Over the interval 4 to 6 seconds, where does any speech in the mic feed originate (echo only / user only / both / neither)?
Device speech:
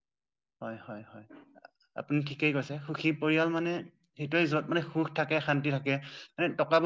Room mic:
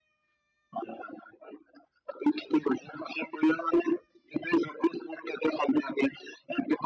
echo only